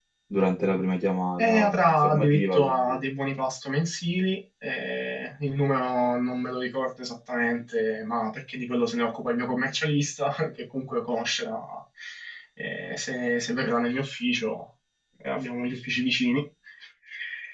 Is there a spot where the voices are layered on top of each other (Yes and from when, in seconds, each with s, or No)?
Yes, from 1.4 s